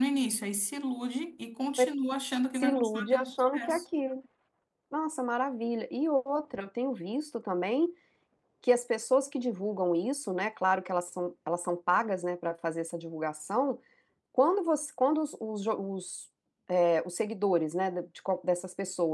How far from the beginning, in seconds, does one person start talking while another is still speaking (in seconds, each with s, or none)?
2.5 s